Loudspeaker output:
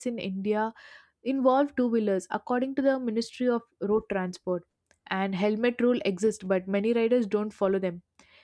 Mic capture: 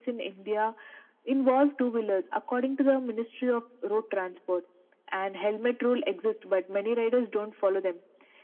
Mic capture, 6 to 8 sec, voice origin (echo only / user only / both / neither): echo only